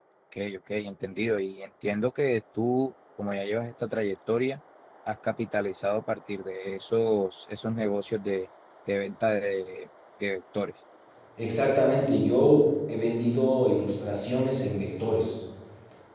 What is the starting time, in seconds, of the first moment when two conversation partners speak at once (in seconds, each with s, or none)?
none